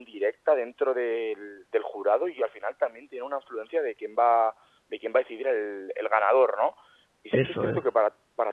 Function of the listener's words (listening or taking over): listening